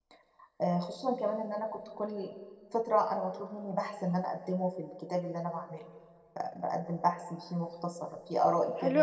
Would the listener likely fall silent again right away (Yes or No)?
No